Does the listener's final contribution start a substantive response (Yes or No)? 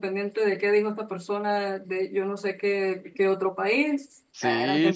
Yes